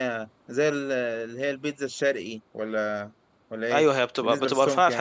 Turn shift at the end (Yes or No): Yes